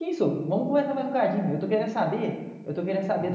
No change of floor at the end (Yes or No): Yes